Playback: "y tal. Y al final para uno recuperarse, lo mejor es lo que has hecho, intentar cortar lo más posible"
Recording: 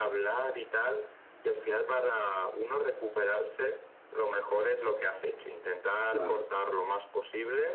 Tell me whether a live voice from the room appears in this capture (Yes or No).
Yes